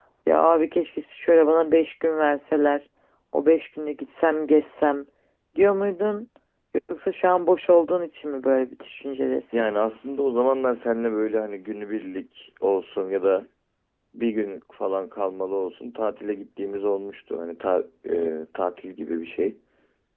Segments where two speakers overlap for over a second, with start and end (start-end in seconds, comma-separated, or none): none